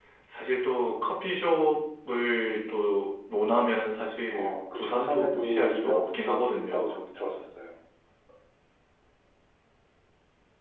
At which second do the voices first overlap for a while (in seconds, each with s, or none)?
4.3 s